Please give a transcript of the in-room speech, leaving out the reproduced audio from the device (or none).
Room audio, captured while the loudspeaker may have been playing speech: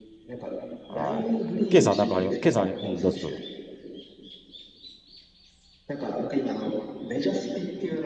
はい。ケイさんなんかあります、ケイさんあり、うん、どうぞどうぞ。